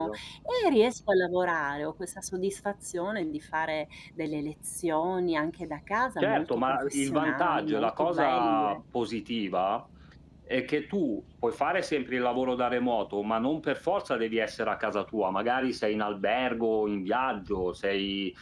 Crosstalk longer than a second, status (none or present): present